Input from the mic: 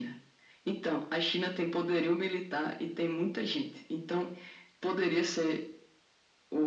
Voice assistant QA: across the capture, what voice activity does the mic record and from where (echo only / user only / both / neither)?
echo only